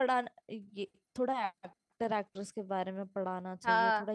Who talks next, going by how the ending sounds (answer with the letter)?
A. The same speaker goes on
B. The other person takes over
A